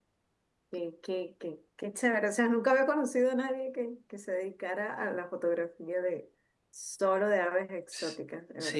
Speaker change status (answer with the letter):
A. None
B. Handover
B